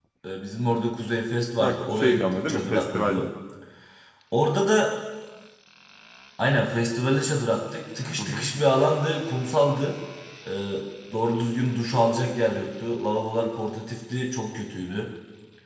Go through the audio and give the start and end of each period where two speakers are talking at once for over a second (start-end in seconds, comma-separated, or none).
1.6-3.3